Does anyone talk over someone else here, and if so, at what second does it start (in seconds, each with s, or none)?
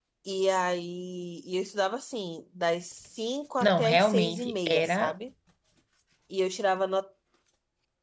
3.6 s